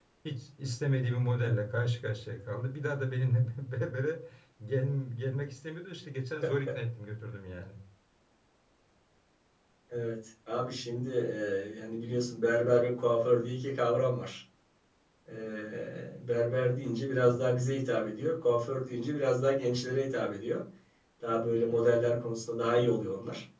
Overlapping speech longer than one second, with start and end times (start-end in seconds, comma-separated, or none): none